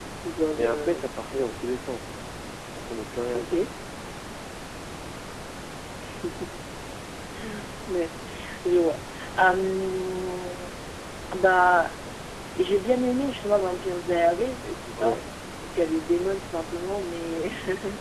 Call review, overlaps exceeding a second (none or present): none